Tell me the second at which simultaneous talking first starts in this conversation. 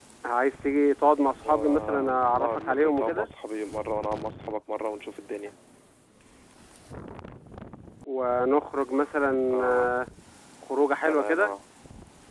1.5 s

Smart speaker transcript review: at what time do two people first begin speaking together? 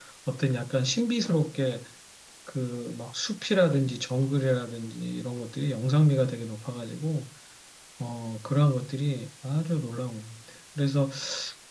none

